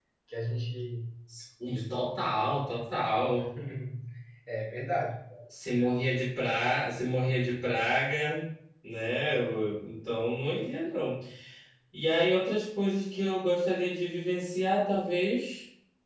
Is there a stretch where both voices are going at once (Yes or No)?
No